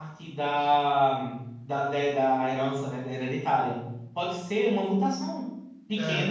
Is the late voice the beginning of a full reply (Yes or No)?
No